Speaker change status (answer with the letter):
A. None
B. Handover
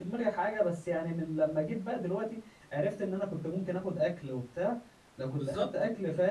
A